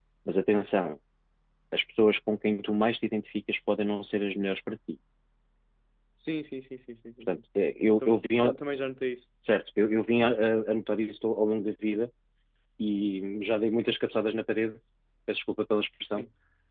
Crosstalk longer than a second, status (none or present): none